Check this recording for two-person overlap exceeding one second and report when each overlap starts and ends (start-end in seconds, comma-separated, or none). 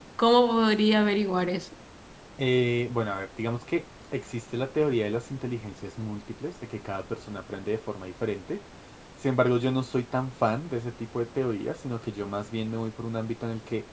none